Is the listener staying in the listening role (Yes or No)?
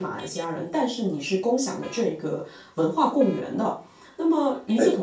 Yes